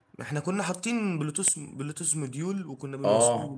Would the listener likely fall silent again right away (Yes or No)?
No